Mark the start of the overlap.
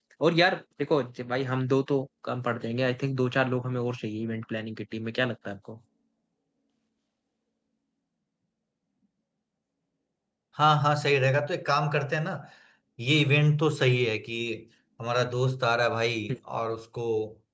none

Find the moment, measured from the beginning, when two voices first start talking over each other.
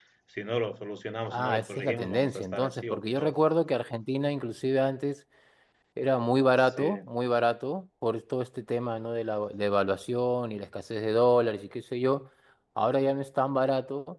1.3 s

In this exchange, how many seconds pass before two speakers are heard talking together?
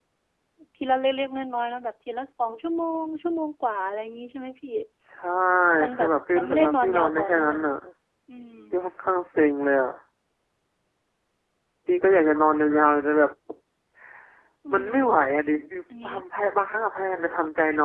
5.9 s

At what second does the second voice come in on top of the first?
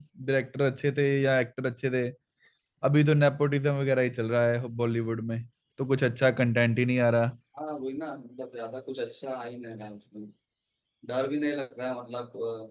none

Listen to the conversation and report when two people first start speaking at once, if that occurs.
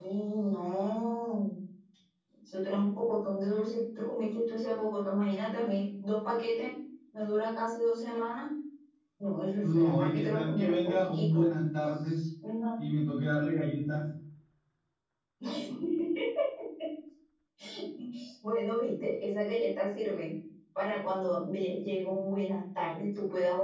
9.6 s

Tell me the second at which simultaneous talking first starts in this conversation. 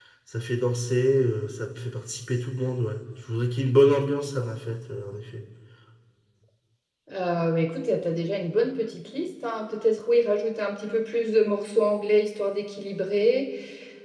none

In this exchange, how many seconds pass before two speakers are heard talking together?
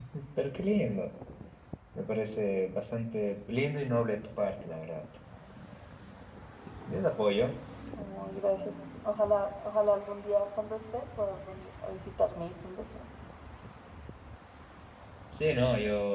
none

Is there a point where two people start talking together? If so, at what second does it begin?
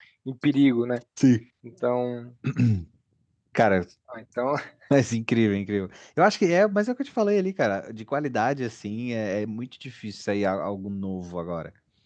none

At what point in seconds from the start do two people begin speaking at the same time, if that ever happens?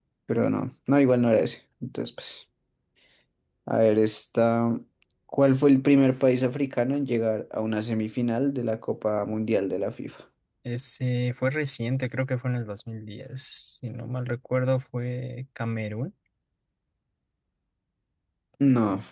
none

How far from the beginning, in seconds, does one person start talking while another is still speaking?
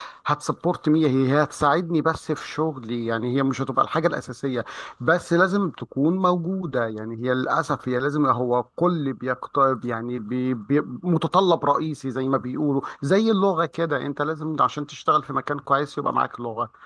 none

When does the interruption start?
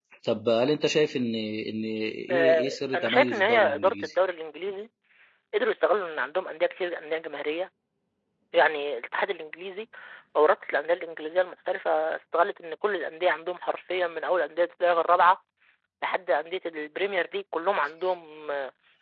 2.3 s

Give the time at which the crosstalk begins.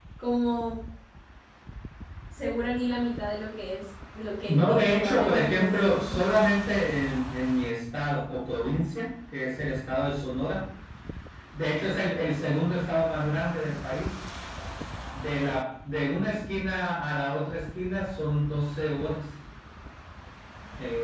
4.5 s

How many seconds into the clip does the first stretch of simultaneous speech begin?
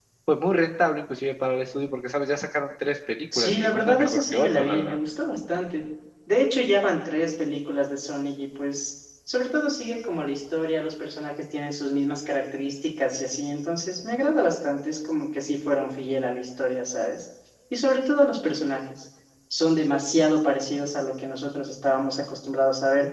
3.3 s

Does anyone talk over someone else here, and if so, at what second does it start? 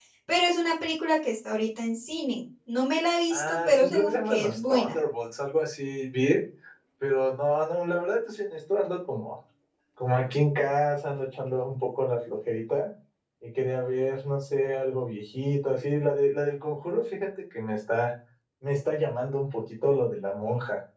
3.3 s

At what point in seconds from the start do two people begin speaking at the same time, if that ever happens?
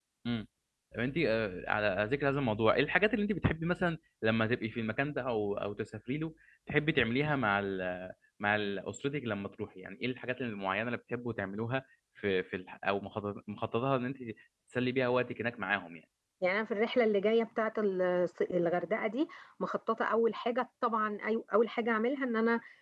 none

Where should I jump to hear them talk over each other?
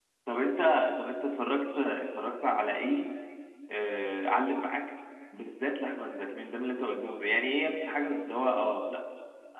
none

